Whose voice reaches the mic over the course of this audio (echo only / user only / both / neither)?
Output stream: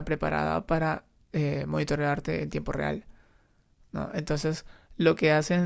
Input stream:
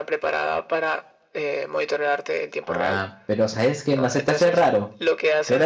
both